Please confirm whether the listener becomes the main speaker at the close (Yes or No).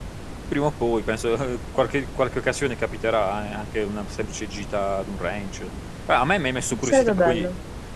No